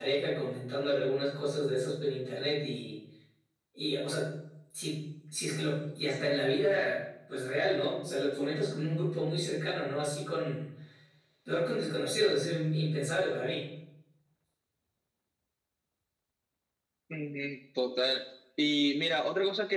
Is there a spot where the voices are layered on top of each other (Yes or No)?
No